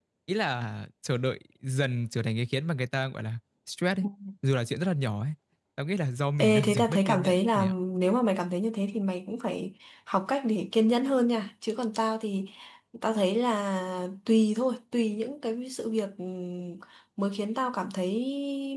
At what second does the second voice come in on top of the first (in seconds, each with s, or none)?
6.4 s